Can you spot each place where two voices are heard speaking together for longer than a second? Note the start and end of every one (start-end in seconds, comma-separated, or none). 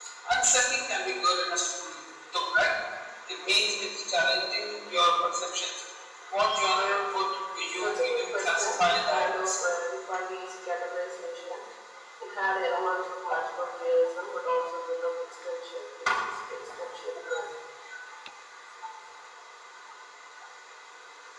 7.8-9.6